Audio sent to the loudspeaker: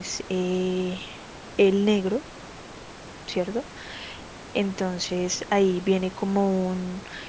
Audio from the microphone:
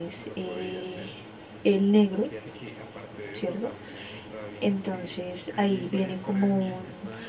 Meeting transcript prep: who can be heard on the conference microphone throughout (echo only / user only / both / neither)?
both